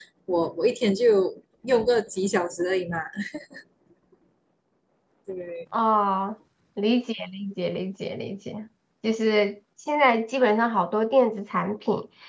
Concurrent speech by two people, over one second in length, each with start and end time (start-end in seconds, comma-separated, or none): none